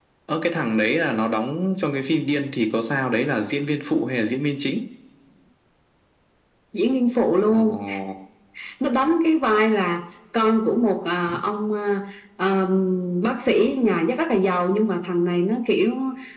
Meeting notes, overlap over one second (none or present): none